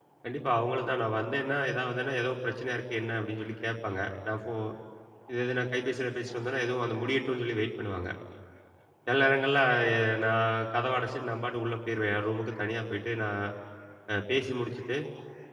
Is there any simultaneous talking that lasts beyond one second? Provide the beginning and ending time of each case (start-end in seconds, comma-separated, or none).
none